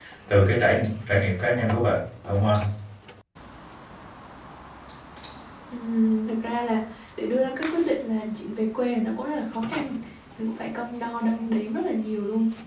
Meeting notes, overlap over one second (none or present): none